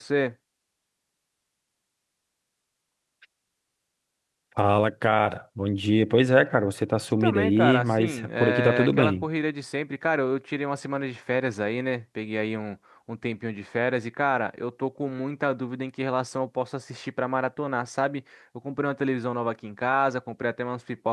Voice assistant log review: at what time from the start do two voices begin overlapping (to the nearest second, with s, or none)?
7 s